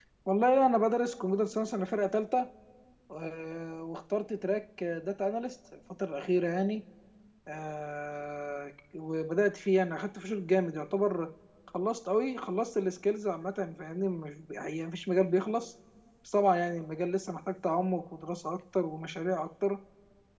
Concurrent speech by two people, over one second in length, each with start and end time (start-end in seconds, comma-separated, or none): none